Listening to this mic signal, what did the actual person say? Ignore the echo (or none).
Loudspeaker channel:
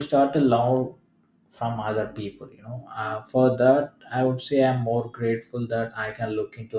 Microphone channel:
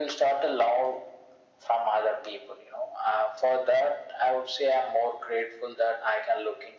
none